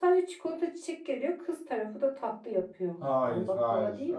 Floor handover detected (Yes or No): Yes